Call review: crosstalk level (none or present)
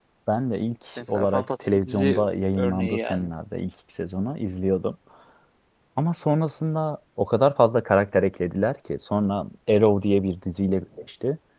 present